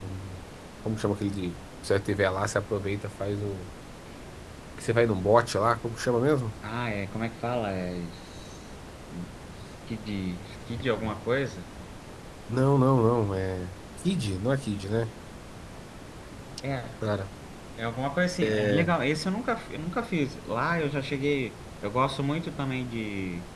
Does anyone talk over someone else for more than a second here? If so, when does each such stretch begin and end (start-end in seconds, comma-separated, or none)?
none